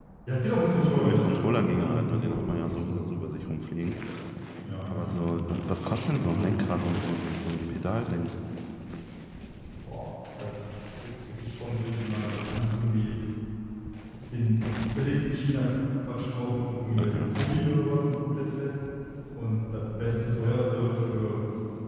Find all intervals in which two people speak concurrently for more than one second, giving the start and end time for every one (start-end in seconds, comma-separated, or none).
0.7-3.1